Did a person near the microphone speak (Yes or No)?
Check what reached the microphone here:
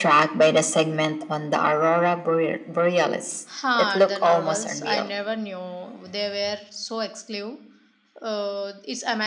Yes